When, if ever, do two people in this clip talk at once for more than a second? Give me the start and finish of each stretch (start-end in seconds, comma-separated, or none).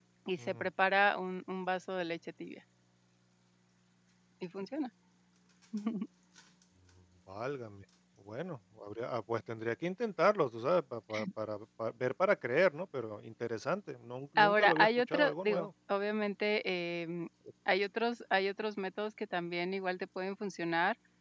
14.4-15.7